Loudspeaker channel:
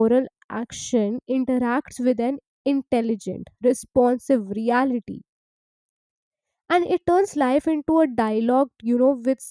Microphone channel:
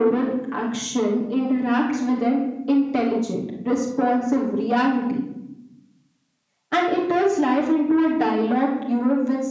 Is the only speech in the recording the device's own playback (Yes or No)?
Yes